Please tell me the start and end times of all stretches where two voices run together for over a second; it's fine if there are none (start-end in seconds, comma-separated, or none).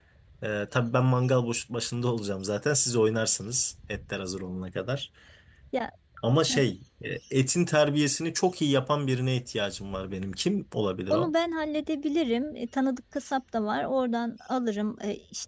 none